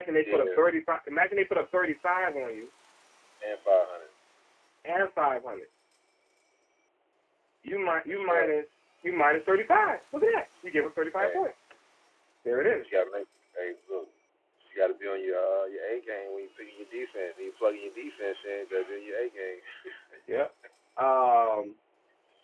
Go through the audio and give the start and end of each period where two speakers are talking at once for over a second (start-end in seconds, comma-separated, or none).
none